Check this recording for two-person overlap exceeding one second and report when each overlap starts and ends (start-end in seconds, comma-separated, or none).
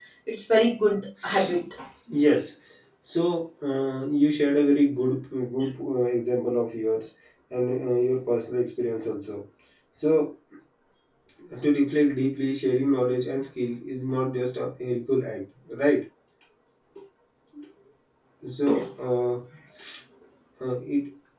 none